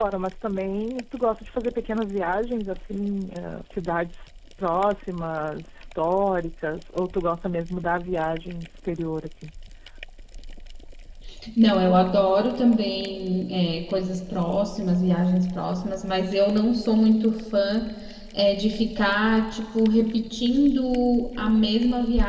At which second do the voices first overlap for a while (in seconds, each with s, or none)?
none